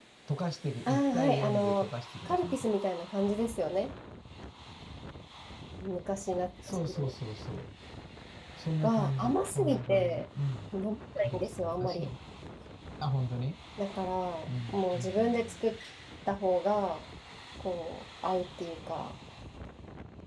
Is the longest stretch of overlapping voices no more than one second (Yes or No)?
No